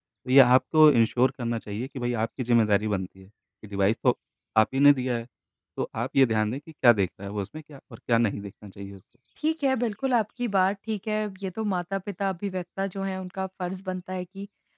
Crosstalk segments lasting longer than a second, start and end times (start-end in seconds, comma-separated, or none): none